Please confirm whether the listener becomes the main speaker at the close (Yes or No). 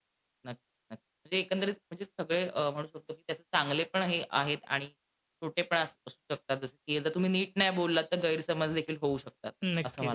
Yes